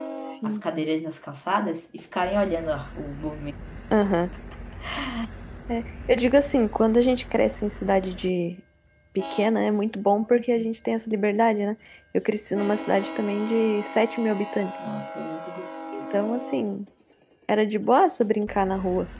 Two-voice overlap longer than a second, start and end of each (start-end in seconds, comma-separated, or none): none